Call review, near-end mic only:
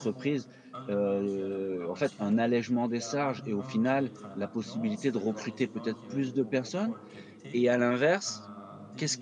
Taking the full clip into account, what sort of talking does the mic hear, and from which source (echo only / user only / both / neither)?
both